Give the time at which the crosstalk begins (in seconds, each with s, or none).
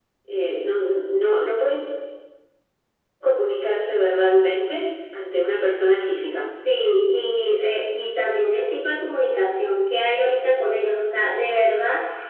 none